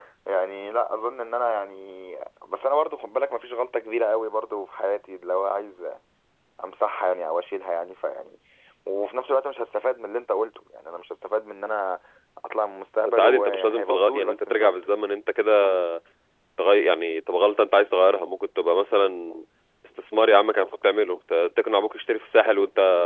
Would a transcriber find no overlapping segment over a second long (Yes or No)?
No